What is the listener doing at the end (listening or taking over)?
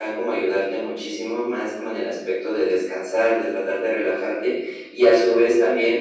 listening